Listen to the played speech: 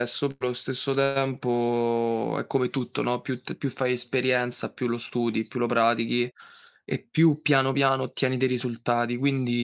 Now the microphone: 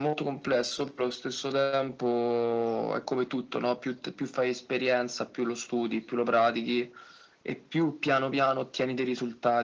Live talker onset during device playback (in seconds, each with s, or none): none